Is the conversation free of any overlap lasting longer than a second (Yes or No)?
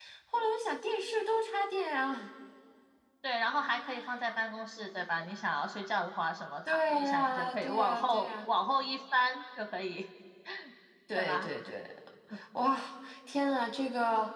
No